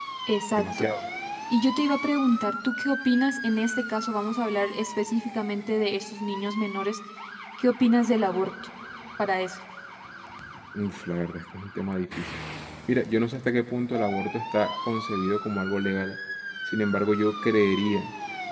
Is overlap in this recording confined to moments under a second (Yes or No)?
Yes